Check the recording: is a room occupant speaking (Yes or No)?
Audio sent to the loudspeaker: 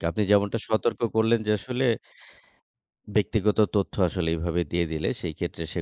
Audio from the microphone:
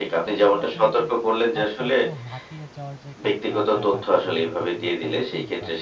Yes